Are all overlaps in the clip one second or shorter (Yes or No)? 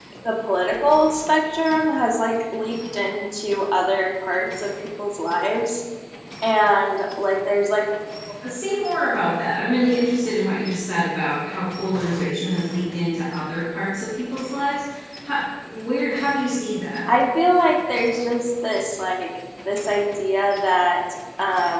Yes